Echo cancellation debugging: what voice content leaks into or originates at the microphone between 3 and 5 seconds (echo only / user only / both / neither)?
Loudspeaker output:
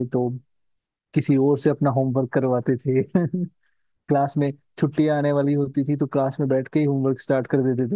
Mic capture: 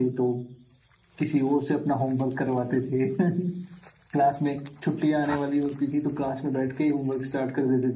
echo only